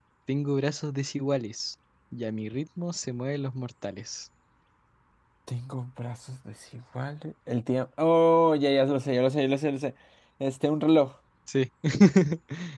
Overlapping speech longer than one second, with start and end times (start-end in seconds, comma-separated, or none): none